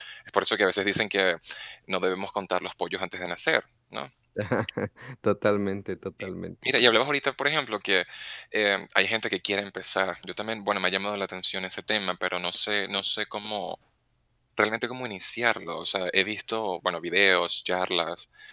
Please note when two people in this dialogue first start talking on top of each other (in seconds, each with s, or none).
none